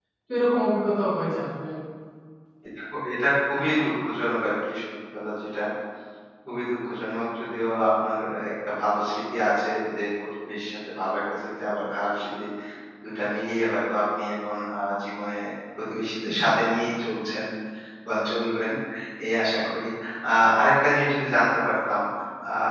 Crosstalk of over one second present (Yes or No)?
No